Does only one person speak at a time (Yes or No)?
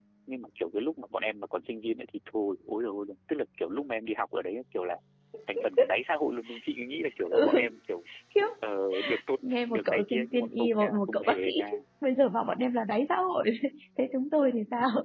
No